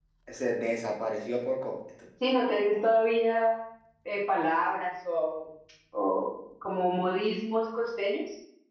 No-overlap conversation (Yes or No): Yes